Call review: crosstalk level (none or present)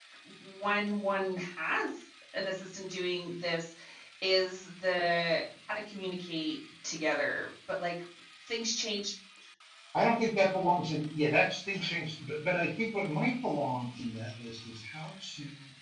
none